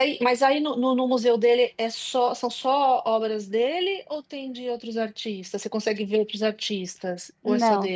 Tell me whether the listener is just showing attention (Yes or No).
No